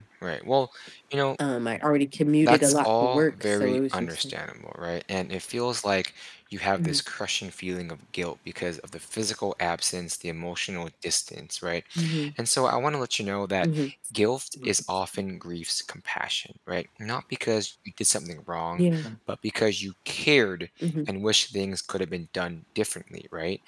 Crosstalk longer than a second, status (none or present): present